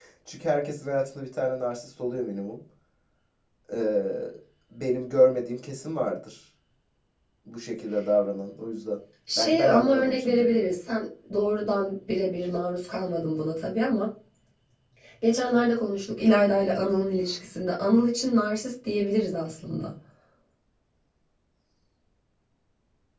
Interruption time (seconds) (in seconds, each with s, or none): 9.3 s